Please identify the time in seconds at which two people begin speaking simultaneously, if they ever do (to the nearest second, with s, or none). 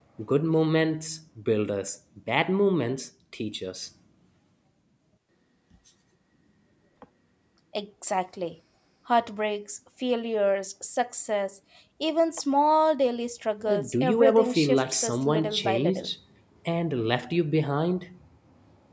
14 s